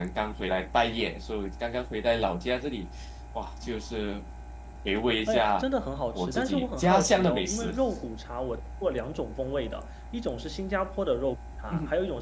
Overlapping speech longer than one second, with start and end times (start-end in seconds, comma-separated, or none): 6.2-7.7